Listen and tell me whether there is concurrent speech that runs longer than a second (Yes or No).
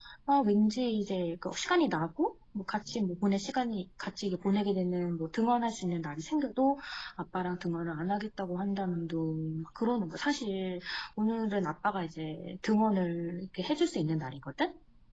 No